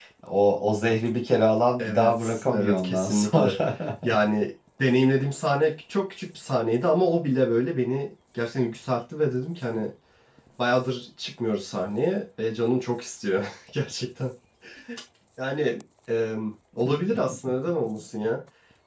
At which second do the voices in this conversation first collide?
2 s

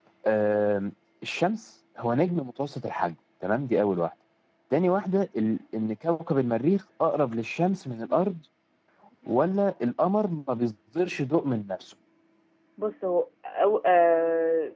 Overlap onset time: none

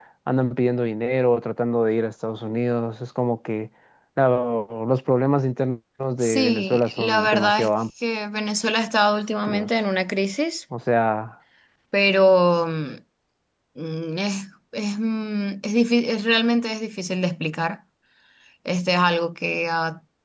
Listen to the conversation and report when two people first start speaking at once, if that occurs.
6 s

